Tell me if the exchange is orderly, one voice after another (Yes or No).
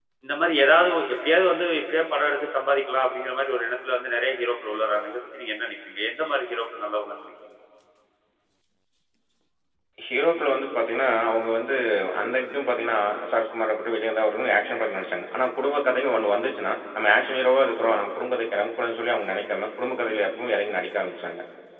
Yes